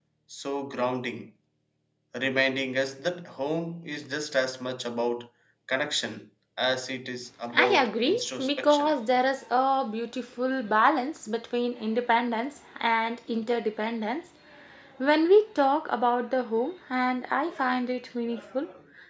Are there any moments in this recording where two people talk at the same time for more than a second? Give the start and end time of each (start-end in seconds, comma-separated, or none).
7.5-8.9